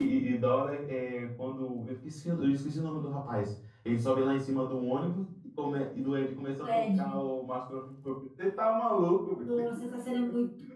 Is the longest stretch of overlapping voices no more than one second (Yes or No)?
Yes